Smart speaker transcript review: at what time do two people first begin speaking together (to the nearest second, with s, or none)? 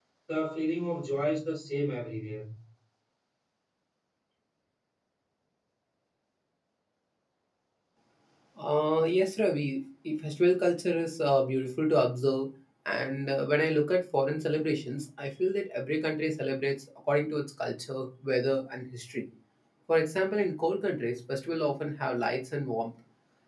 none